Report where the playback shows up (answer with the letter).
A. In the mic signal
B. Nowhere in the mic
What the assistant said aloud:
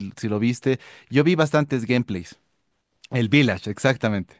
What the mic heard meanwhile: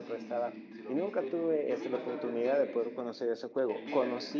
A